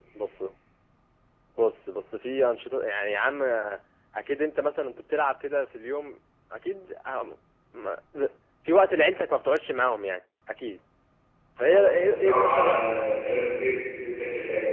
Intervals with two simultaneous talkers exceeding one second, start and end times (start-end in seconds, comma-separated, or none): 11.6-12.8